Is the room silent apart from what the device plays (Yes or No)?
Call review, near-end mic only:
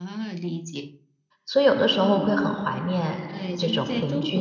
No